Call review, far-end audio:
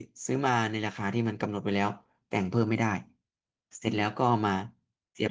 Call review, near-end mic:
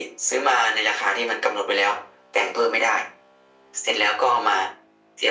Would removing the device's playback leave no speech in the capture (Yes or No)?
Yes